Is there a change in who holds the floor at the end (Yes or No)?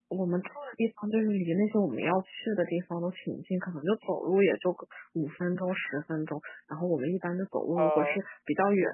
No